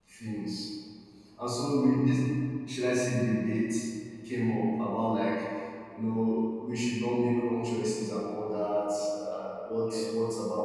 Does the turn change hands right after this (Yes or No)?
No